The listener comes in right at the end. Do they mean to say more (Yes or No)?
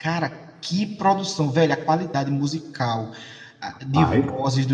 No